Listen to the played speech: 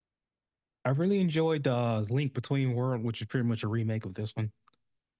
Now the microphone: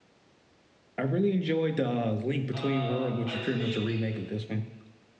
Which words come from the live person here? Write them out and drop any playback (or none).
Uh, I think